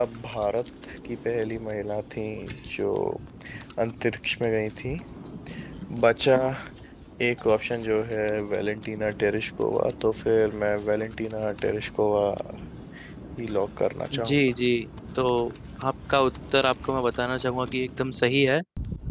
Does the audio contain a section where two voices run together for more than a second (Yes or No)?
No